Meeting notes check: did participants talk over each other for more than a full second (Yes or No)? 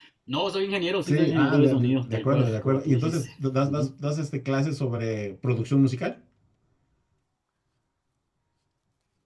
Yes